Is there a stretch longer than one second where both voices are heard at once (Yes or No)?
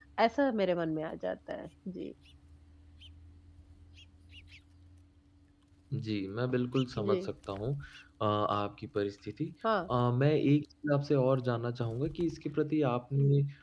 No